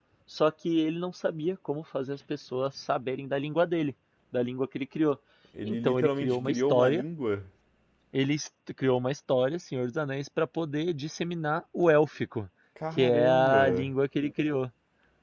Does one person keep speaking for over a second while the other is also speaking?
Yes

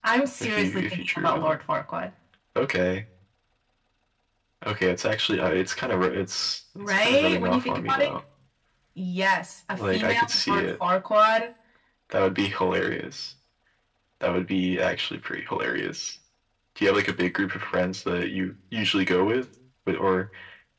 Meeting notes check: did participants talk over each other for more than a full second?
Yes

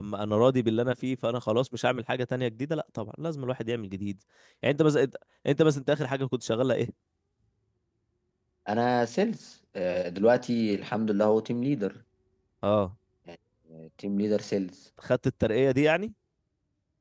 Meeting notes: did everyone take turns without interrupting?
Yes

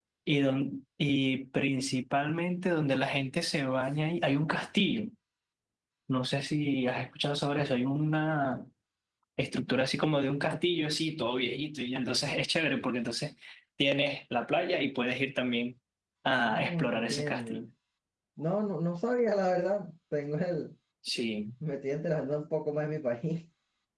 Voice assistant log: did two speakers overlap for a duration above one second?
Yes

